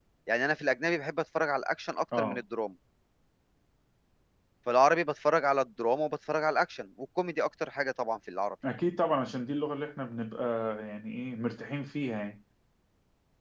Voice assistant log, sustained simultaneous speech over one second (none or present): none